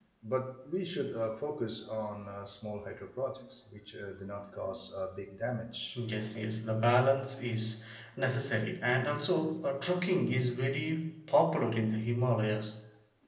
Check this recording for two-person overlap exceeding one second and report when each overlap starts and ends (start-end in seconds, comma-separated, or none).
none